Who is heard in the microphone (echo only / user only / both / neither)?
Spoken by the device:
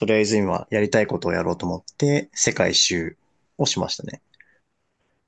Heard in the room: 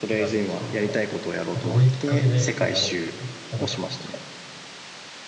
both